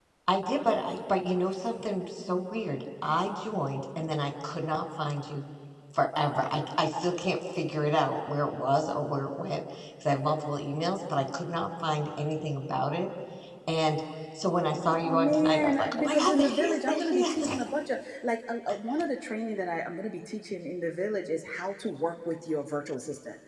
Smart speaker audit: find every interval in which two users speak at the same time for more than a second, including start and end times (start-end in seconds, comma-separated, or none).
15.0-17.6